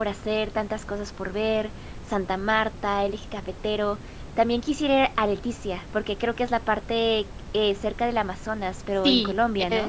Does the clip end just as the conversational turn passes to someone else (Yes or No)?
Yes